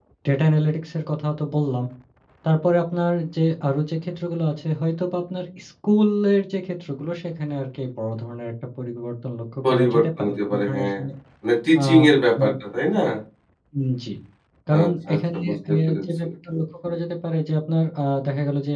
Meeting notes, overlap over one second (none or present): present